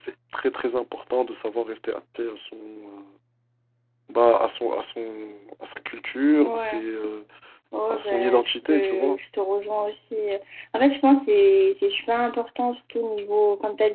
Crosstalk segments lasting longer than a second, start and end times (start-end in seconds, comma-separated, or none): 7.9-9.2